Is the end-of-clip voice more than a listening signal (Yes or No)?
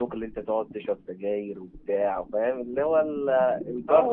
Yes